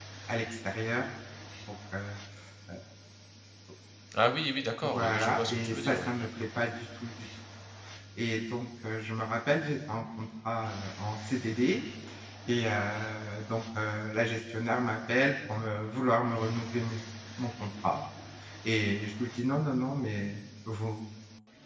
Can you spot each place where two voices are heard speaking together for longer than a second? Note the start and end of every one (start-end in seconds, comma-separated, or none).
4.8-6.1